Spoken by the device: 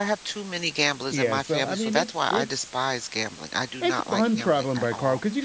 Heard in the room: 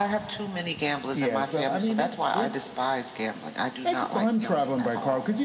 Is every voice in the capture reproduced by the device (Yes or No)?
Yes